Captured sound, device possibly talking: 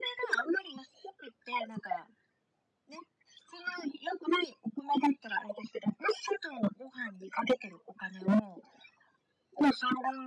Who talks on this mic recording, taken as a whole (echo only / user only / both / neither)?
echo only